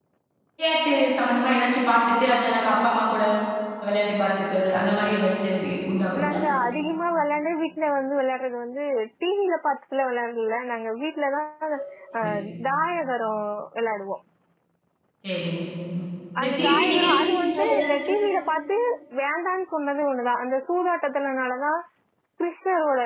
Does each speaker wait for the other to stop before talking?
No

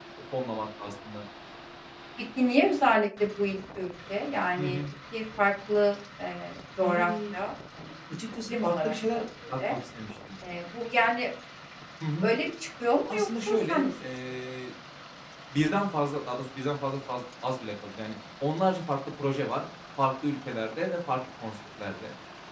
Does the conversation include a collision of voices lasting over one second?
Yes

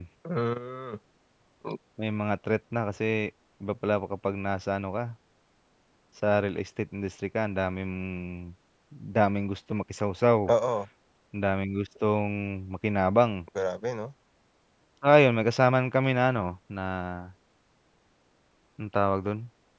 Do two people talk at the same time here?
No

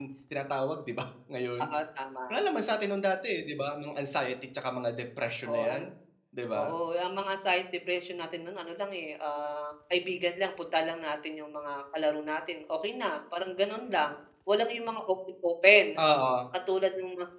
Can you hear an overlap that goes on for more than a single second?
No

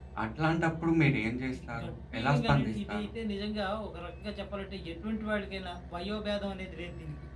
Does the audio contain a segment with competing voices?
Yes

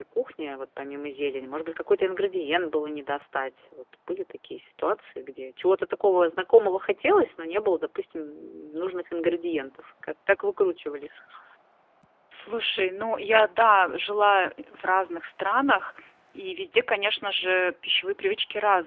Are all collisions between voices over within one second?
Yes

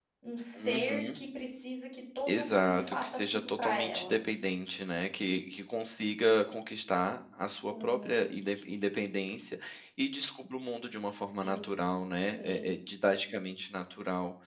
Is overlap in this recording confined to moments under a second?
No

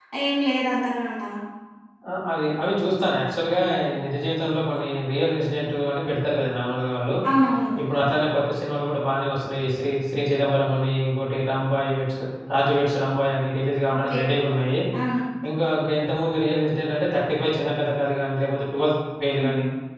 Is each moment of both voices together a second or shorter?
Yes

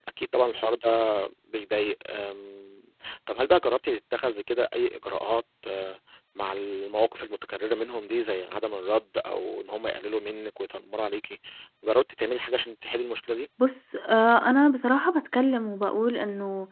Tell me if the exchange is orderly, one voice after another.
Yes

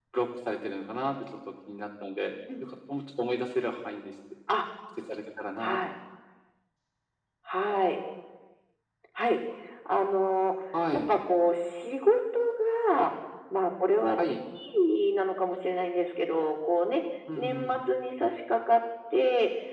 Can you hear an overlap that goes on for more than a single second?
No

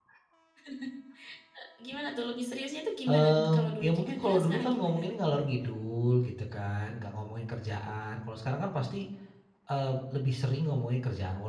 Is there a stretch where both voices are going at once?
Yes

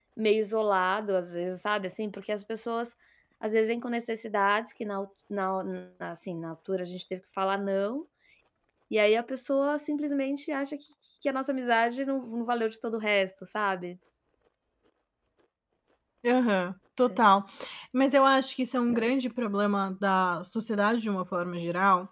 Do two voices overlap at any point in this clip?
No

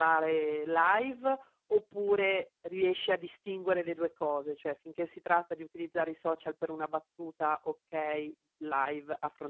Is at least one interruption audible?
No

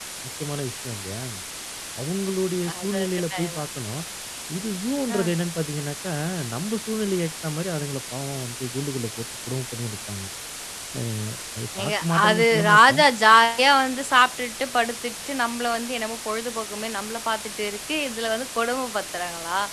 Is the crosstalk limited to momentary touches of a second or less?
No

